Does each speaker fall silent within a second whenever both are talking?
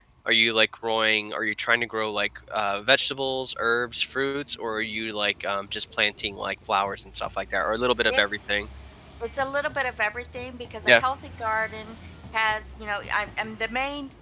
Yes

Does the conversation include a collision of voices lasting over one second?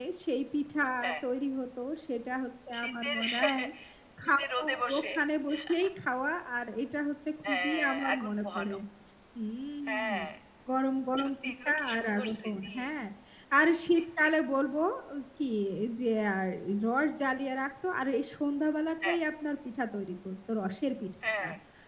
Yes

